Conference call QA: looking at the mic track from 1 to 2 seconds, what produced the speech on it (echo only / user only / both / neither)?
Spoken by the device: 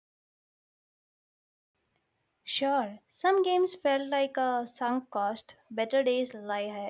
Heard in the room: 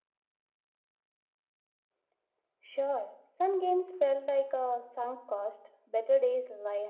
neither